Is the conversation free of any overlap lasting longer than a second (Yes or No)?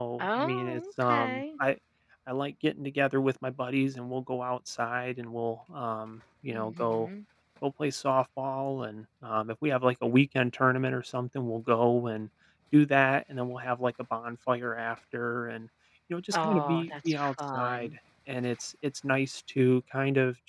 No